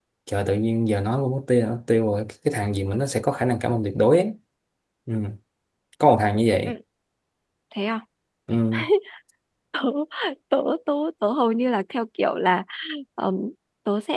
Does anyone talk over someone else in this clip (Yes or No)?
No